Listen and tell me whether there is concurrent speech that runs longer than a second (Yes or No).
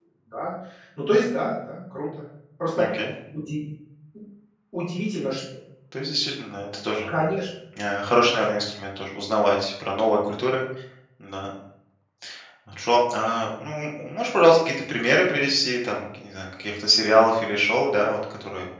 No